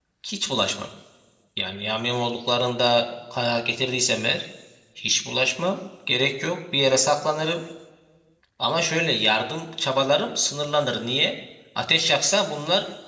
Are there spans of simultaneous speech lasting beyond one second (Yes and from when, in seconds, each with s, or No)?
No